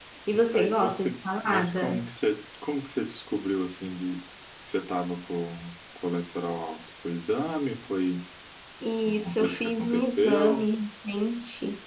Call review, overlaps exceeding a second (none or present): present